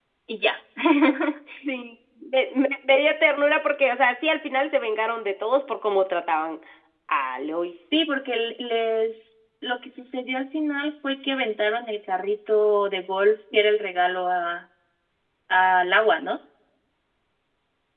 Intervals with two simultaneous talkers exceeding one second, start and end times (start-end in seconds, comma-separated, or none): none